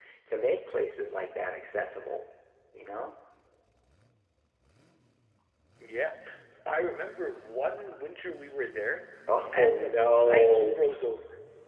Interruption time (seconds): 10 s

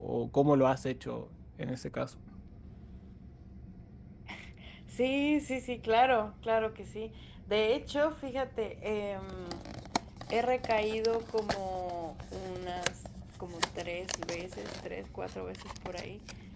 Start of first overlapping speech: none

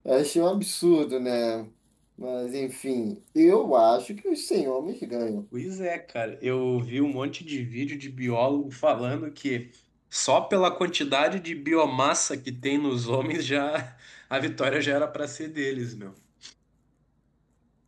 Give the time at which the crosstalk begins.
none

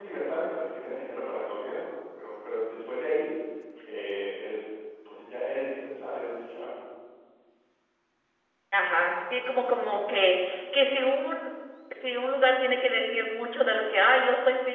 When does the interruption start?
none

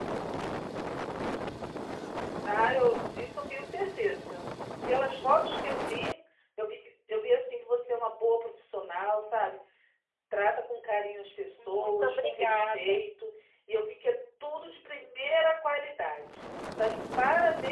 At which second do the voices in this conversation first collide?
12 s

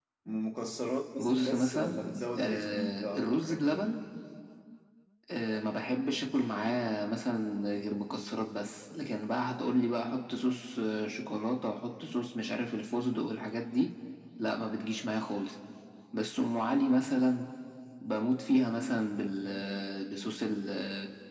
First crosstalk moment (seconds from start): 1 s

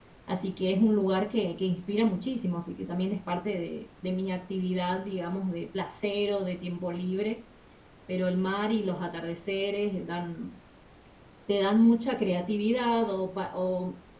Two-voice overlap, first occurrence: none

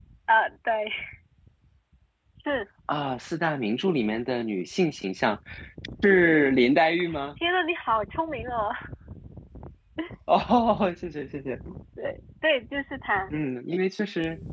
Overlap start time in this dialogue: none

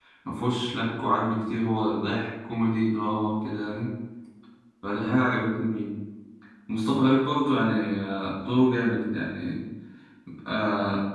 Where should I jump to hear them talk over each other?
none

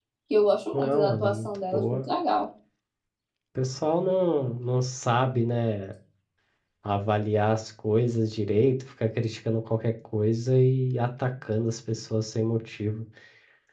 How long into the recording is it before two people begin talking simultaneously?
1 s

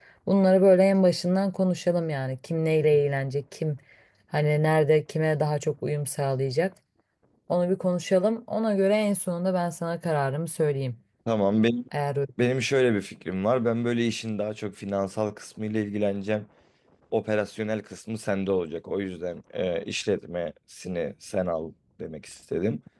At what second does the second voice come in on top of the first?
none

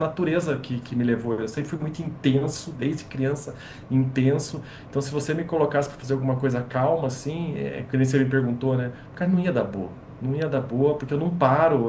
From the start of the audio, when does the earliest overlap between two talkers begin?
none

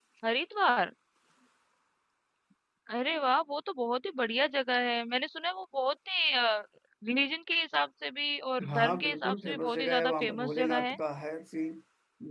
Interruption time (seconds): 9 s

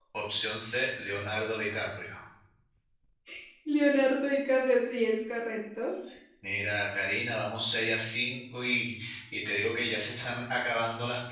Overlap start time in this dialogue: none

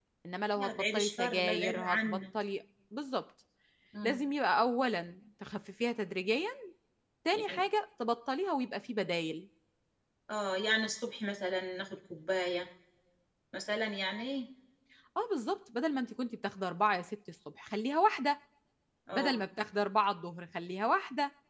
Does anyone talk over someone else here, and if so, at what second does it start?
1 s

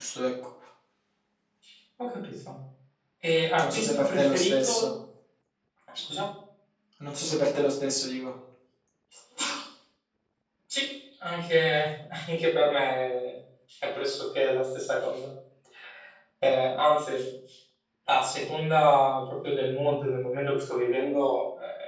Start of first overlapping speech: 4 s

